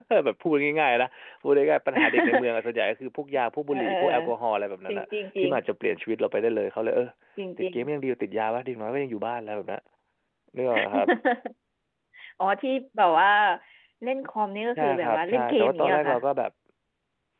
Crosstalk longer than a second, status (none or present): present